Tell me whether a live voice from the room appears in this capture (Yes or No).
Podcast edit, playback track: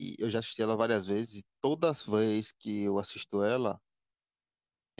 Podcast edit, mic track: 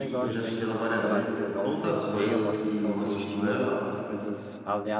Yes